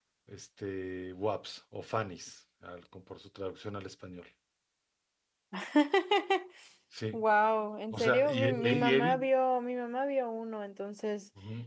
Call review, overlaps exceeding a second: present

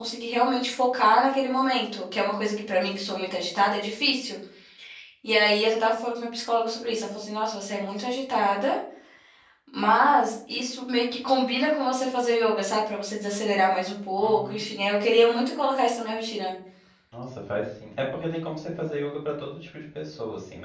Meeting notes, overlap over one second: none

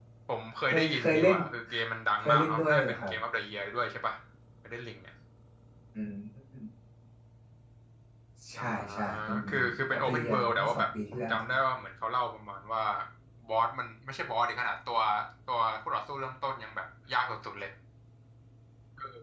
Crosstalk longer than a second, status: present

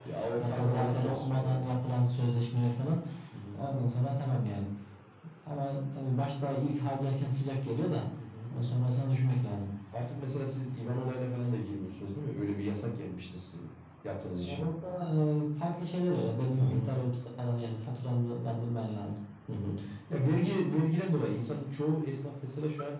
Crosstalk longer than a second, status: present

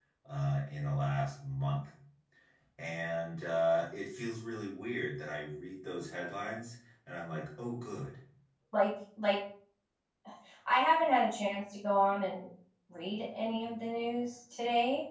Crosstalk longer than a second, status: none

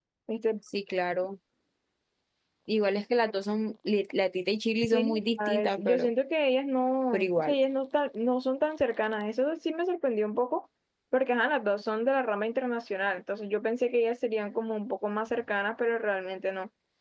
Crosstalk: present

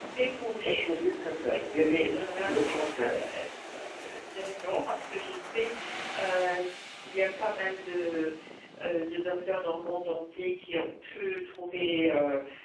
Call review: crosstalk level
present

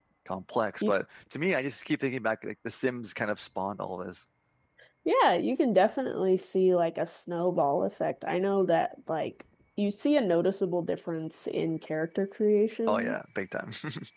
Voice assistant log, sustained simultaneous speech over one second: none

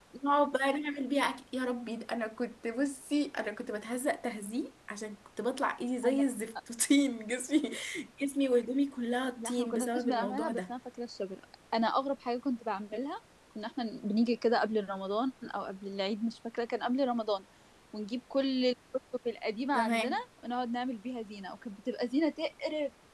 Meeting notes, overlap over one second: present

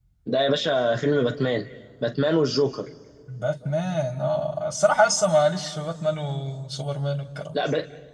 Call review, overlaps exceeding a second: none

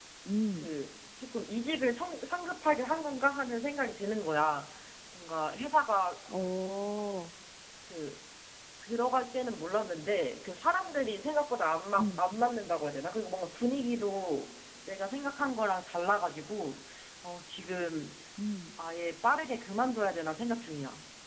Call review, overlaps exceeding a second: none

